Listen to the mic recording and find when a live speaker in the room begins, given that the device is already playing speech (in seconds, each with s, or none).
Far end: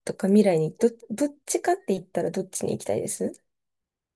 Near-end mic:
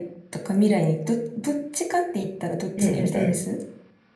2.8 s